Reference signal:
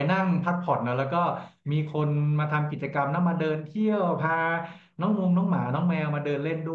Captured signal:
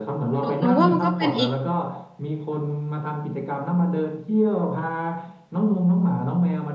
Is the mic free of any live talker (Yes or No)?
No